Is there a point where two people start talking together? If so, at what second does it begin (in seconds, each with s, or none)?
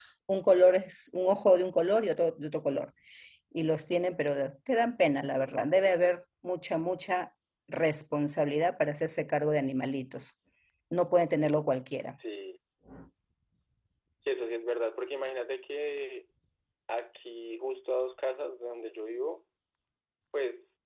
none